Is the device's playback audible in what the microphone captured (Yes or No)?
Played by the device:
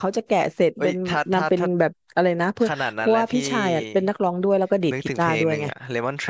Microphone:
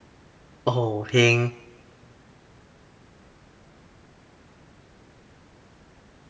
No